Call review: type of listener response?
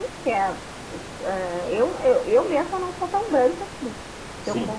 listening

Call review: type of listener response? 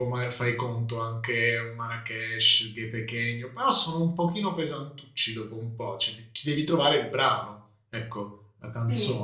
taking over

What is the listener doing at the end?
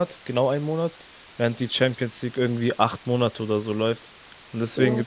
listening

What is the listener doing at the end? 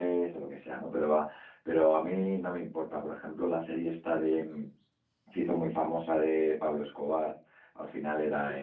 listening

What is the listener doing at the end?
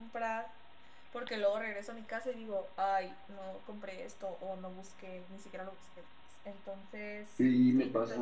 taking over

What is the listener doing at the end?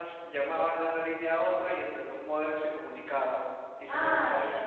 taking over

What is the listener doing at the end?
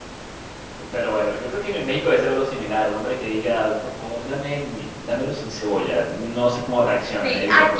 taking over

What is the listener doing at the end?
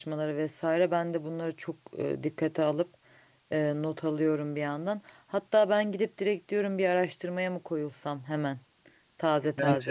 taking over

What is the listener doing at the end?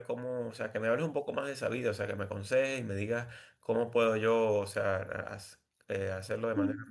listening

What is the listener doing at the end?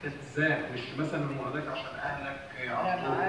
taking over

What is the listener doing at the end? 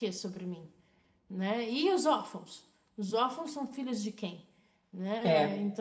listening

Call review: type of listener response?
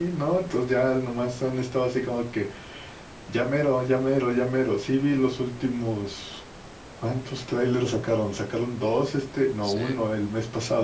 listening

